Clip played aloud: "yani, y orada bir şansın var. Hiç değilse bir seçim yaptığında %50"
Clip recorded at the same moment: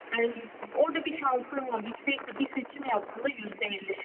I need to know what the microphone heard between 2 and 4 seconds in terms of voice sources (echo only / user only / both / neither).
echo only